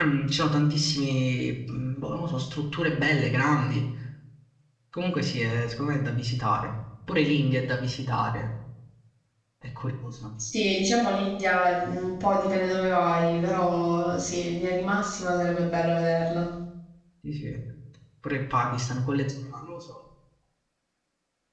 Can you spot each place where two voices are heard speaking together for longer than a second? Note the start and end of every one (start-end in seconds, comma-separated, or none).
none